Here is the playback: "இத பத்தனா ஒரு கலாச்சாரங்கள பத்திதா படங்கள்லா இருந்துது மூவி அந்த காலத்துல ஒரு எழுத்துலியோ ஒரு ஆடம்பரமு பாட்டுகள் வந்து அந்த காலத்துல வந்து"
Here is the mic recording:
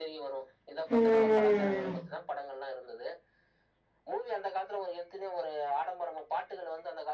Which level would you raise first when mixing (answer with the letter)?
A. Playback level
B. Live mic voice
A